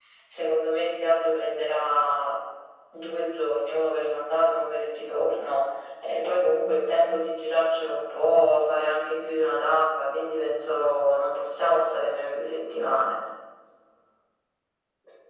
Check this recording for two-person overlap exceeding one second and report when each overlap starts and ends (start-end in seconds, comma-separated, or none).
none